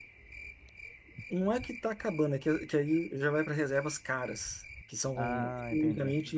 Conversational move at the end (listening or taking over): listening